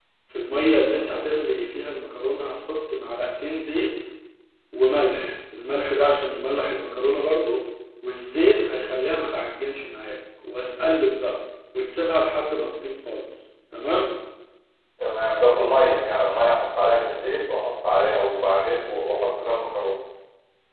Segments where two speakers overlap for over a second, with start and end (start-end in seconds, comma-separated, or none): none